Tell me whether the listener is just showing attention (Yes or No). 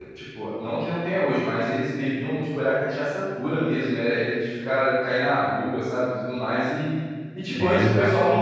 Yes